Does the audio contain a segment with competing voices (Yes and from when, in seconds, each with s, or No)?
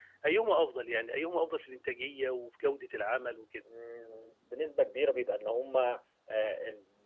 No